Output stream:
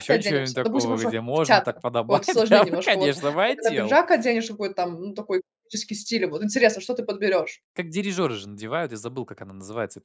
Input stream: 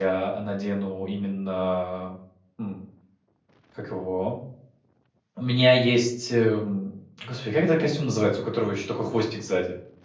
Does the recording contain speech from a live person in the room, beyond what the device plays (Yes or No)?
Yes